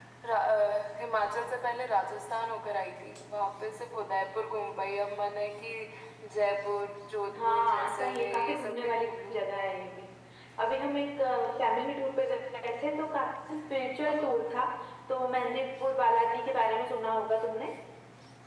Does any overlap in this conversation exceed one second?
Yes, from 7.4 s

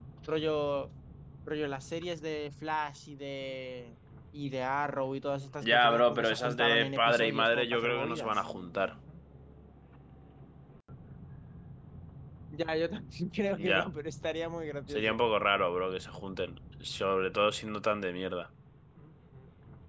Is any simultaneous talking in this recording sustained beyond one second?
Yes, from 5.6 s

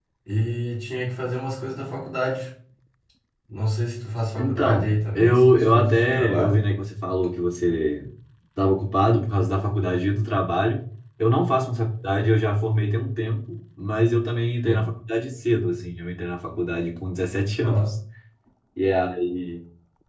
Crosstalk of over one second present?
Yes, from 4.4 s

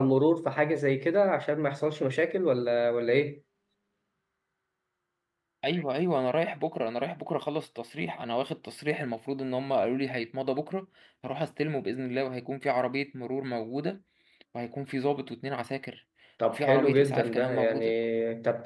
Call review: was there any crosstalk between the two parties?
Yes, from 16.5 s

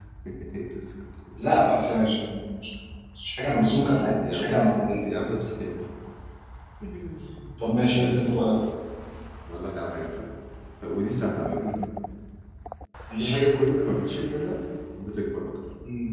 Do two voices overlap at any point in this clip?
Yes, from 3.5 s

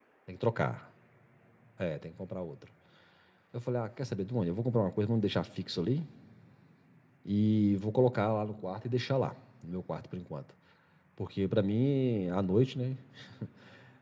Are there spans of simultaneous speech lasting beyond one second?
No

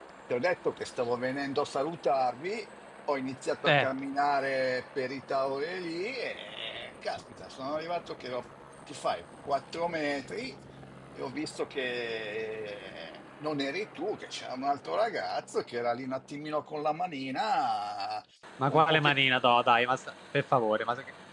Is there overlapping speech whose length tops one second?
No

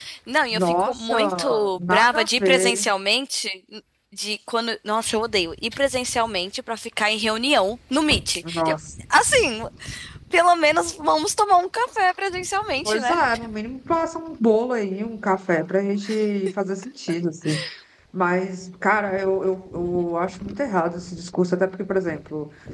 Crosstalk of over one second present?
Yes, from 0.5 s

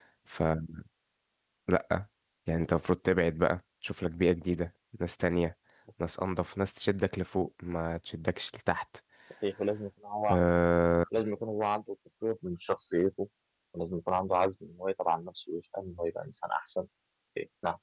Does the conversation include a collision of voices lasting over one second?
No

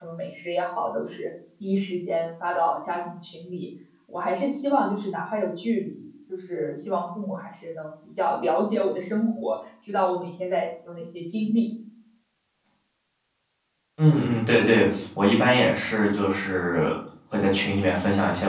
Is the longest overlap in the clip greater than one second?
No

